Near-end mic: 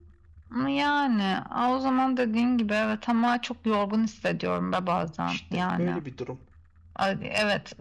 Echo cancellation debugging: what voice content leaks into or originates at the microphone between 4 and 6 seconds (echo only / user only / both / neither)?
both